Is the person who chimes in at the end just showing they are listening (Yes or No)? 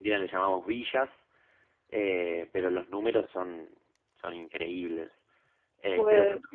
Yes